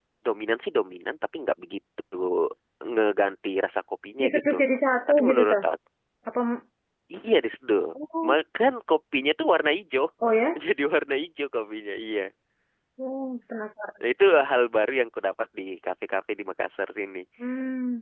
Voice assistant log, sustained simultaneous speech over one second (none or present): none